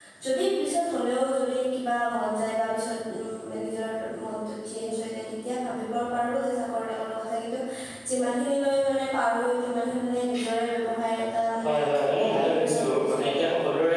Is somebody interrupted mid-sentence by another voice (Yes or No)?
Yes